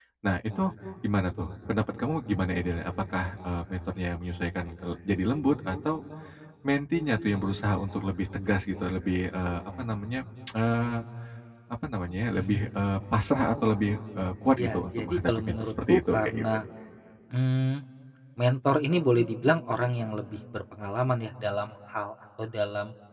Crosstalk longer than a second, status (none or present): present